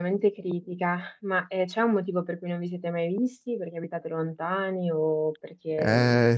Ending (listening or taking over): taking over